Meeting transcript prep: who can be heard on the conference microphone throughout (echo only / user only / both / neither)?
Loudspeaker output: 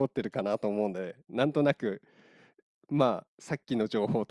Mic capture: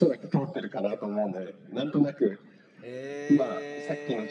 both